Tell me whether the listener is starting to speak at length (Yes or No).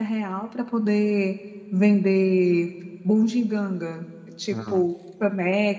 No